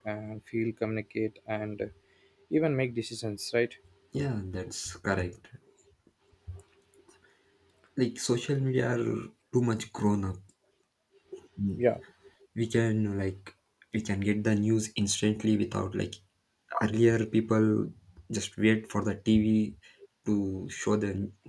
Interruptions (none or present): none